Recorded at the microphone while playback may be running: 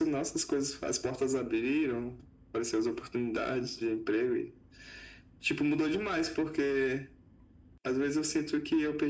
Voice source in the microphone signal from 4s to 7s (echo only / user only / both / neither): echo only